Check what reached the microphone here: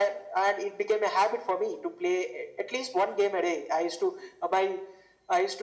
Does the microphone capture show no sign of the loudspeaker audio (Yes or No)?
No